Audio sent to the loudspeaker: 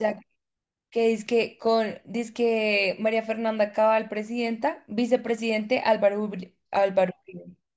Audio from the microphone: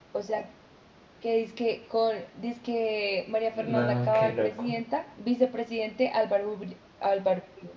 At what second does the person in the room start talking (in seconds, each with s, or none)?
3.5 s